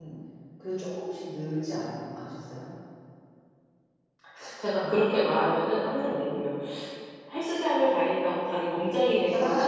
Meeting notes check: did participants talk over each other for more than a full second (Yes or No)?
No